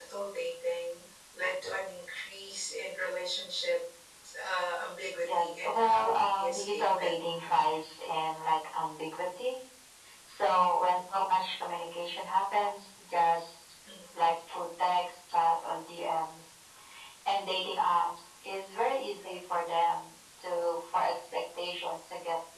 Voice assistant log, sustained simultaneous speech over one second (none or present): present